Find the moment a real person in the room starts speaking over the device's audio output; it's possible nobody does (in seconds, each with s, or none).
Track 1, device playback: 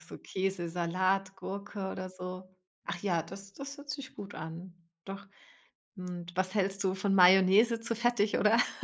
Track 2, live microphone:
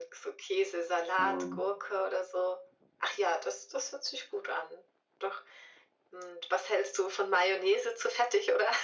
1.2 s